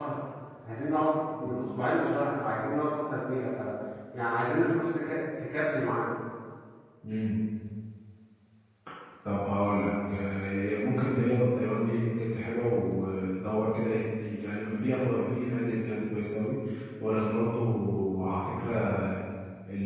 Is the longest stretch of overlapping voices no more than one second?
Yes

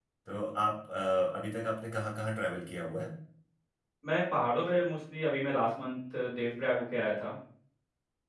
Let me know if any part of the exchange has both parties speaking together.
No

